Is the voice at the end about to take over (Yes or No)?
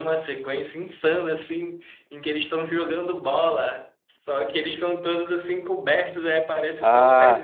No